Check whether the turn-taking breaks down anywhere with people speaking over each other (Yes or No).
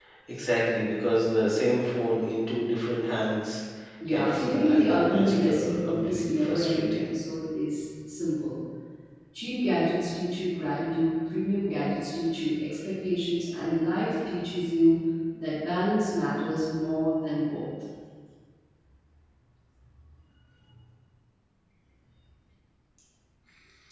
Yes